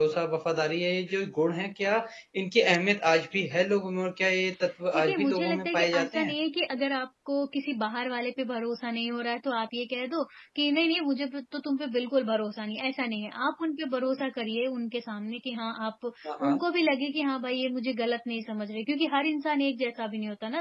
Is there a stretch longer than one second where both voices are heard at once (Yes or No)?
Yes